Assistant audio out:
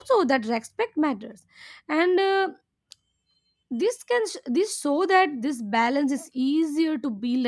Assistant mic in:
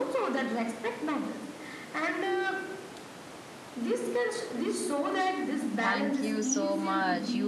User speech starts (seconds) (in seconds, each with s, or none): 5.8 s